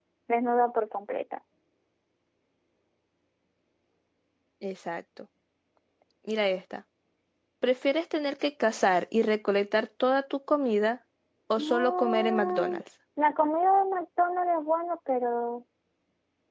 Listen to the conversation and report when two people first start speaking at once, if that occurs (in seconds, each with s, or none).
11.6 s